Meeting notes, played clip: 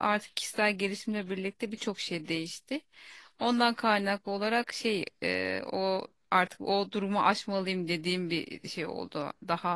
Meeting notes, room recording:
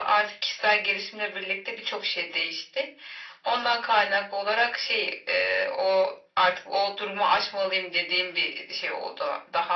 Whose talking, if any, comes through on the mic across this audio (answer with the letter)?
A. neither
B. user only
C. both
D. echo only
D